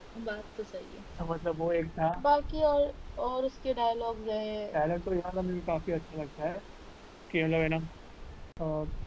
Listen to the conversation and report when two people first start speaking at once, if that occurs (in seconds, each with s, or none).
none